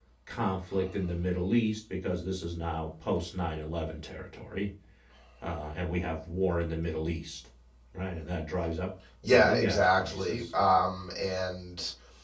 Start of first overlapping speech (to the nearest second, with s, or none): 9 s